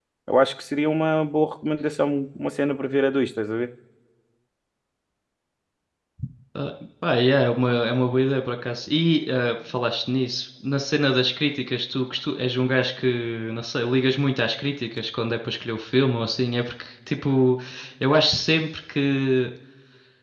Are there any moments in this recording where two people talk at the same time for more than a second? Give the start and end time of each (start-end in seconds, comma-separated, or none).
none